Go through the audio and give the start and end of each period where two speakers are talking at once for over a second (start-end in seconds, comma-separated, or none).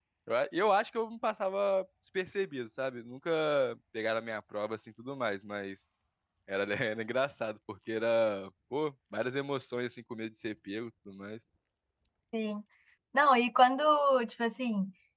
none